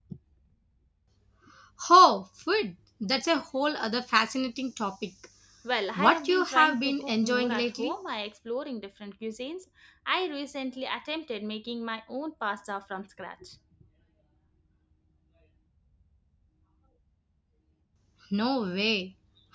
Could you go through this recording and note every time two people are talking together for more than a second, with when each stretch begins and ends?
6.0-7.9

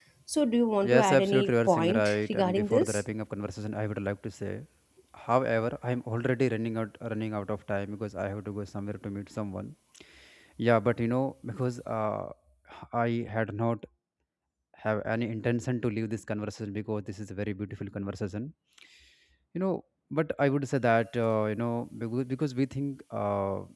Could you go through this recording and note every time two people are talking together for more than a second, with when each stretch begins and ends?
0.8-3.0

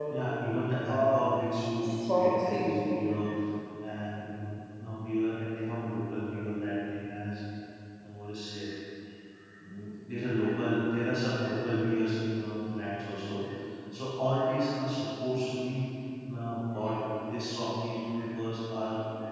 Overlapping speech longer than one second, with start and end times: 1.8-3.1

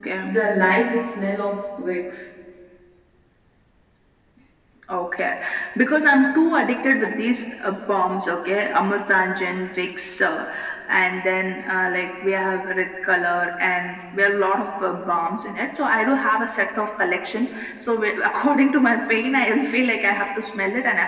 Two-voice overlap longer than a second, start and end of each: none

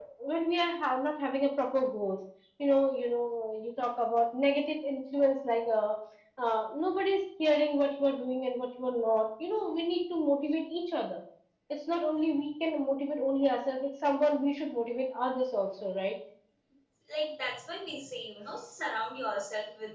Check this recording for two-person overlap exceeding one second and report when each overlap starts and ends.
none

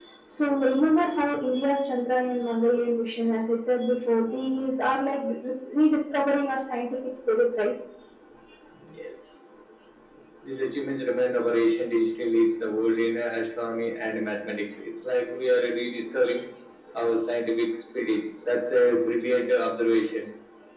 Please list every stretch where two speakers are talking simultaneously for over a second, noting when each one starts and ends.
none

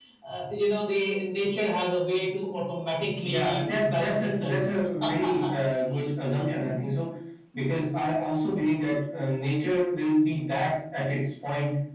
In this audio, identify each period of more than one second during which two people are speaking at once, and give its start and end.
3.2-4.6

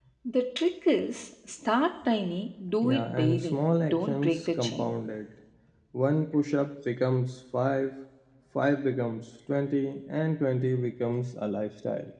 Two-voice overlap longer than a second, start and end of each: 2.8-5.0

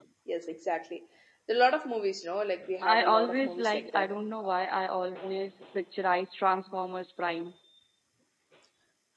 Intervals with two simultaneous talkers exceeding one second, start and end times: 2.8-4.1

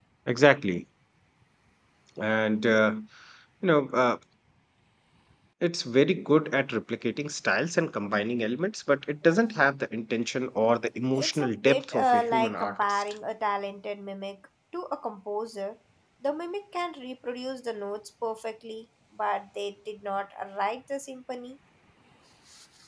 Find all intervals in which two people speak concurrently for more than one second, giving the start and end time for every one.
11.1-13.0

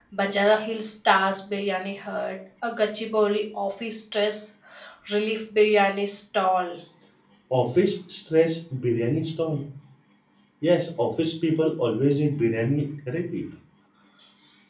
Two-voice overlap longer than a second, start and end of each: none

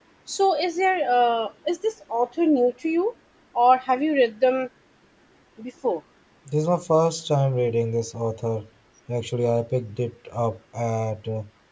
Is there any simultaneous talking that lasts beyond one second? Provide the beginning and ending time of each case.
none

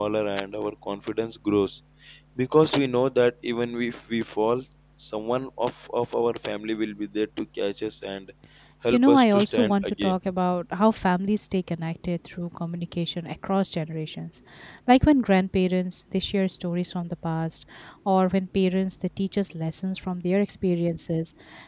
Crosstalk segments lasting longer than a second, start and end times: 8.9-10.1

